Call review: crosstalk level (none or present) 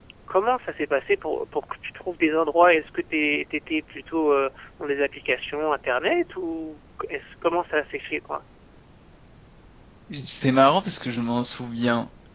none